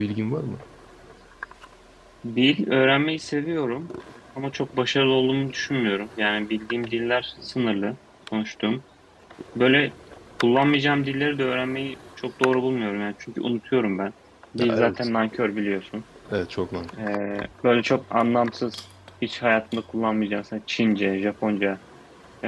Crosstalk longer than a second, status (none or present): none